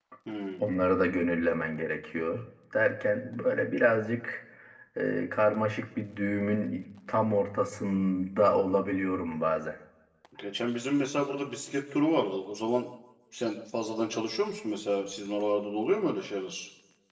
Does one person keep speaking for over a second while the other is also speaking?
No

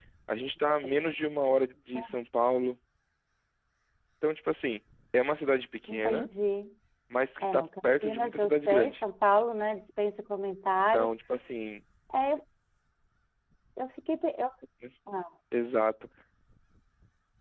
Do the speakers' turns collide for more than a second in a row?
Yes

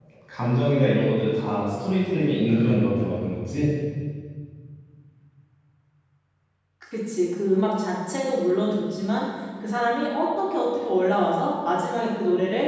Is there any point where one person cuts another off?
No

